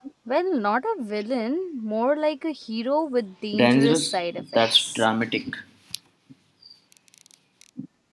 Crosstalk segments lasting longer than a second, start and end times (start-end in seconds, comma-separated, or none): 3.5-5.0